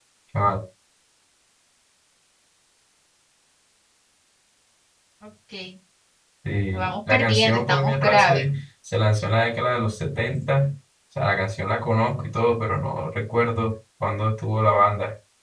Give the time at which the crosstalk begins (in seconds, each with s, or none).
6.7 s